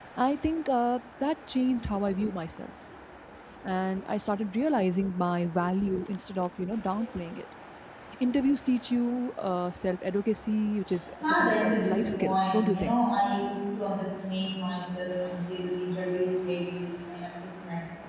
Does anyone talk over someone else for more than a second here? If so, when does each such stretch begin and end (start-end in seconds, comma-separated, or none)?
11.3-13.0